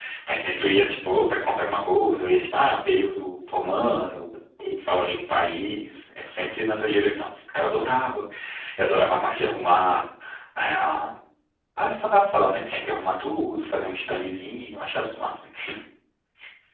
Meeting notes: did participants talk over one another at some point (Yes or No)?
No